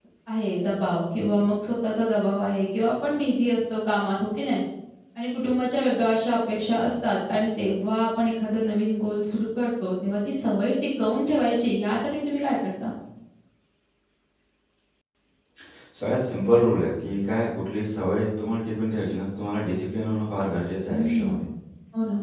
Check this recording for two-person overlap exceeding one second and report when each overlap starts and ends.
none

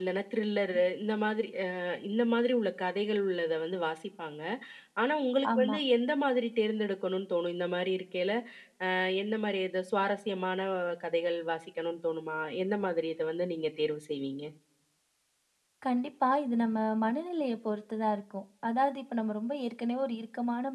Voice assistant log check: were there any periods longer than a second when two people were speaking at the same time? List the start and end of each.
none

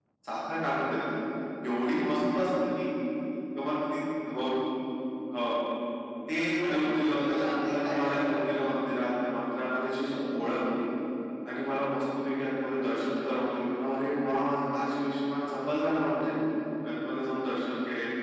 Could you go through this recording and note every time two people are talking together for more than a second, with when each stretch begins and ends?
6.6-8.8

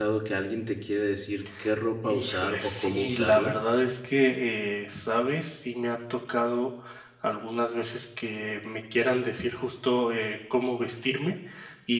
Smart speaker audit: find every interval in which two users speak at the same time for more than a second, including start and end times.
2.1-3.6

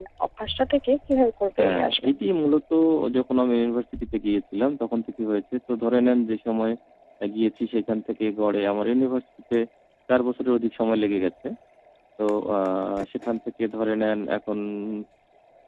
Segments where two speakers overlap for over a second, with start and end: none

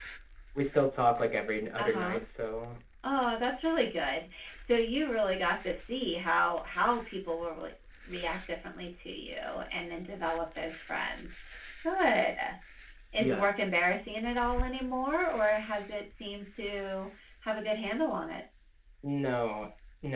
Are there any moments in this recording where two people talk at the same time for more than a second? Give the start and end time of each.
none

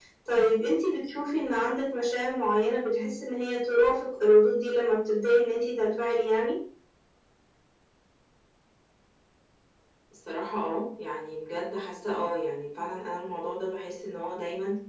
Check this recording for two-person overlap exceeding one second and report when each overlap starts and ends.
none

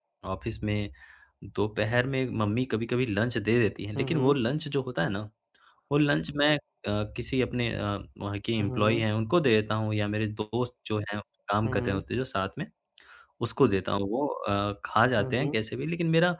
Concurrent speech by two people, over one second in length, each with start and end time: none

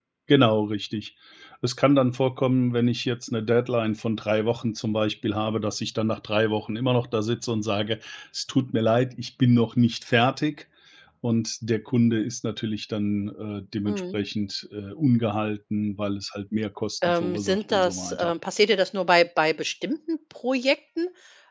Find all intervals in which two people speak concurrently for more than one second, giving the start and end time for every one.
17.1-18.3

